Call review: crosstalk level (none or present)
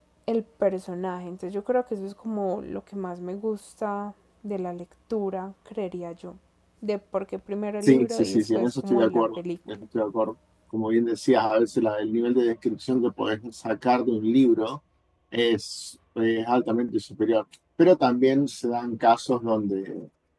present